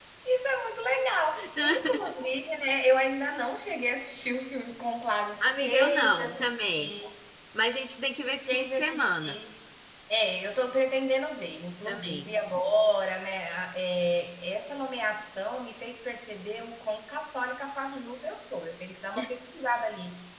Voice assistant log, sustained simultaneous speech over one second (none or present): present